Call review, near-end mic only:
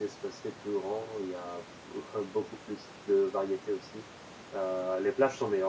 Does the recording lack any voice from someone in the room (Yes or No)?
No